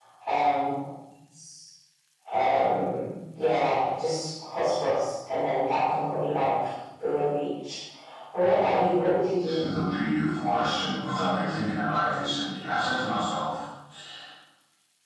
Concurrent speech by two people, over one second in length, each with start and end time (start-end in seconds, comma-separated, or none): none